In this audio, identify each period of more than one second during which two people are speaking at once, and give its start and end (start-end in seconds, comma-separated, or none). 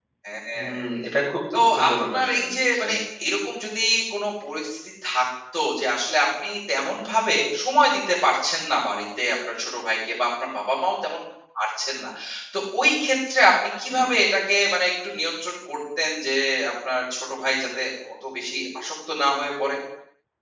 1.7-2.9